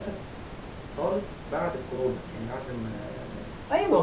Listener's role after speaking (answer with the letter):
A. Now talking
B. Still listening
A